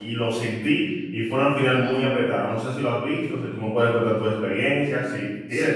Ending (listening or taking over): taking over